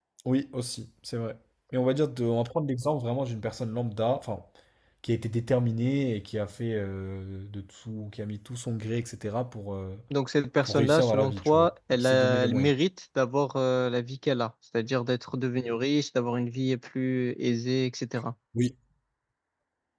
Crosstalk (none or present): present